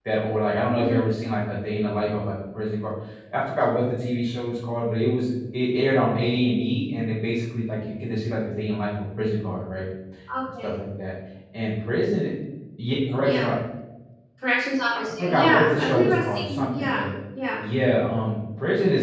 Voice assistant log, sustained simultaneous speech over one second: present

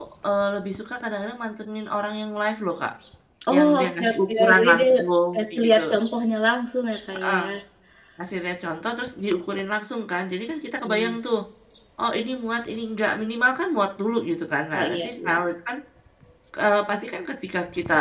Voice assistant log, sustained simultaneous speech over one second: present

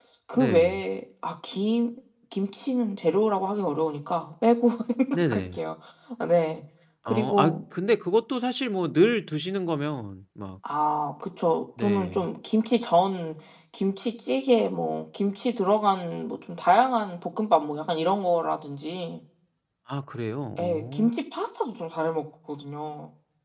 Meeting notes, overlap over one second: none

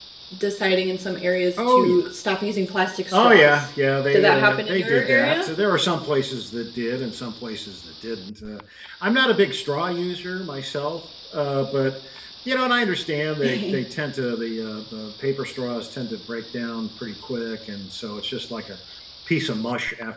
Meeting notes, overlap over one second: present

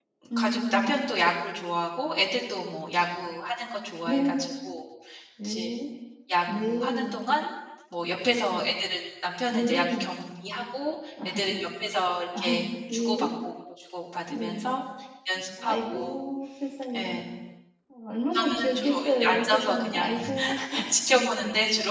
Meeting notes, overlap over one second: present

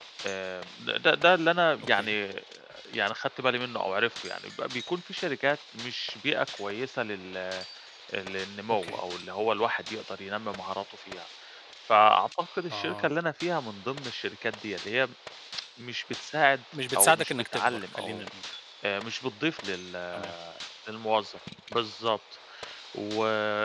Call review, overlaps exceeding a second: present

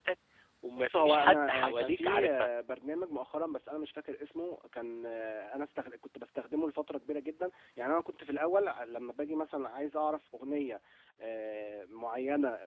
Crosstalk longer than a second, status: present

